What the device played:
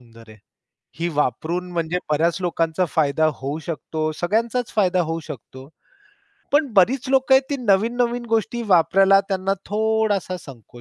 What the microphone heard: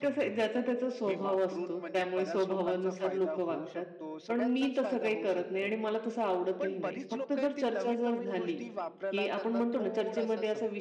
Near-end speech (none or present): present